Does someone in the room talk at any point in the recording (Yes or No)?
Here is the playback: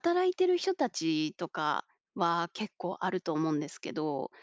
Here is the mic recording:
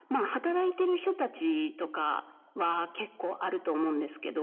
No